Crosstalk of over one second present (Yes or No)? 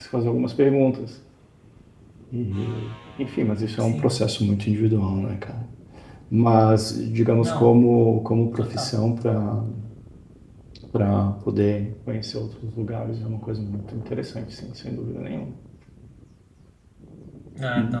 No